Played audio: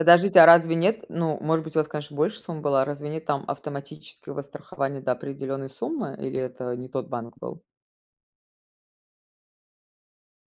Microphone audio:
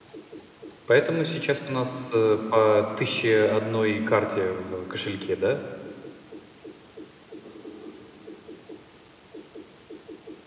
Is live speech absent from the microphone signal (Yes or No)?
No